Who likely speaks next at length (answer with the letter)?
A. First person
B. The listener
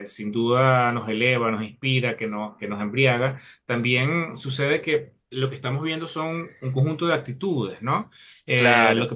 A